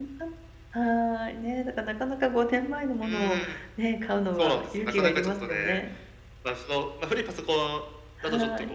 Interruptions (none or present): present